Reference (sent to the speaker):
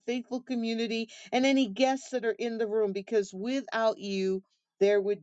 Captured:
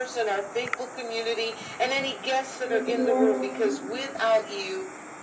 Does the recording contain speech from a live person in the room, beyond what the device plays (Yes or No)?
Yes